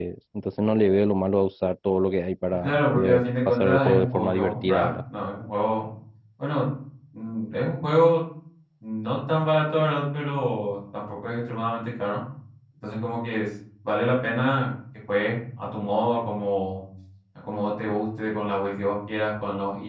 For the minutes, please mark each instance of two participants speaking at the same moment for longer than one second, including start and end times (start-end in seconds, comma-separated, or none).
2.6-4.9